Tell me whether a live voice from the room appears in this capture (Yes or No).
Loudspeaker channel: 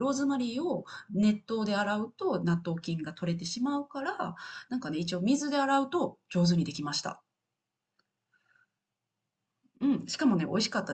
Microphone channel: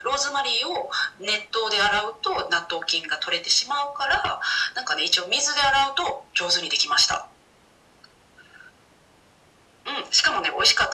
No